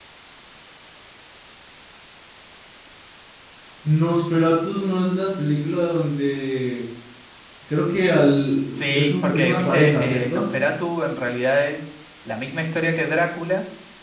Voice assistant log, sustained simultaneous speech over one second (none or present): present